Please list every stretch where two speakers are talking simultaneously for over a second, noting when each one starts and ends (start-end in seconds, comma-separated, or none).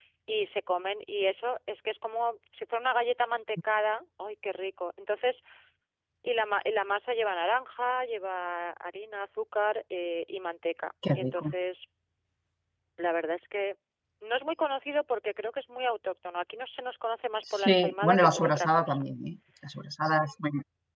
17.5-19.1